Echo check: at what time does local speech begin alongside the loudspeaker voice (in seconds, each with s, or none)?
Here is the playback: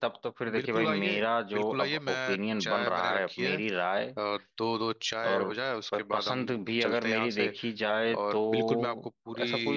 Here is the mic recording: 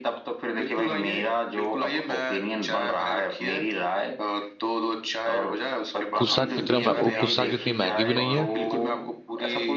6.2 s